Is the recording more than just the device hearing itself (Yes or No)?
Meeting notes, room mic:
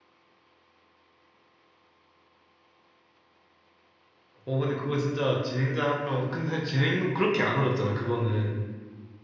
Yes